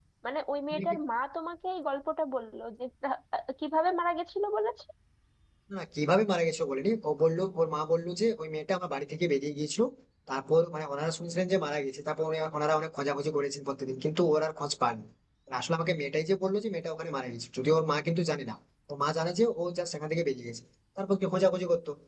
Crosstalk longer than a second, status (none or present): none